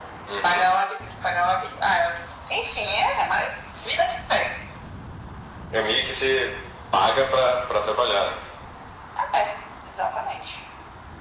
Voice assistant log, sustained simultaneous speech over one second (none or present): none